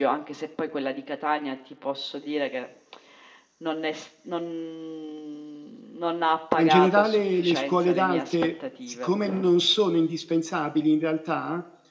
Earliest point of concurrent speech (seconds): 6.6 s

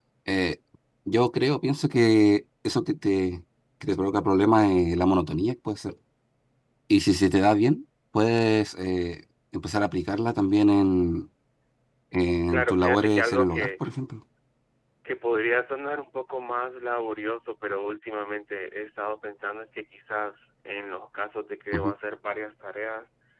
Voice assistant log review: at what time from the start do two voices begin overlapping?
12.5 s

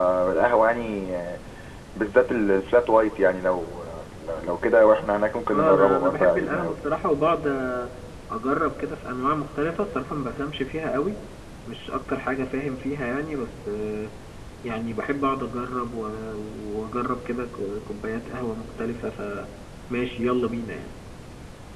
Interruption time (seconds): 5.5 s

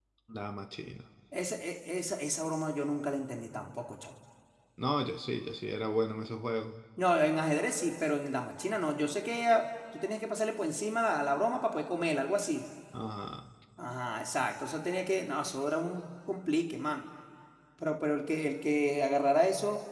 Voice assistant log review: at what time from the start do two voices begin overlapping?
none

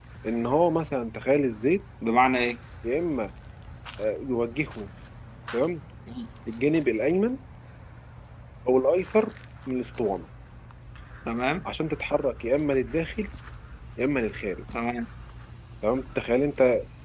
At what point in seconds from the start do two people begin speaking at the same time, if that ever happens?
none

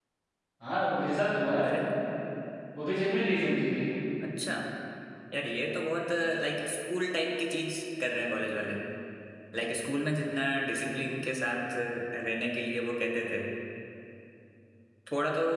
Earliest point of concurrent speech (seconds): none

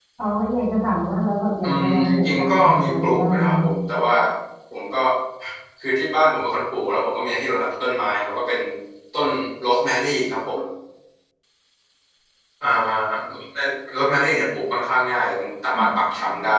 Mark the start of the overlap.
1.6 s

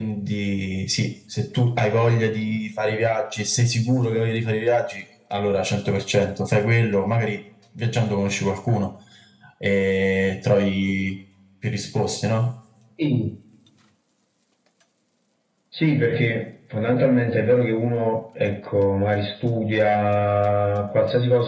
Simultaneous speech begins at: none

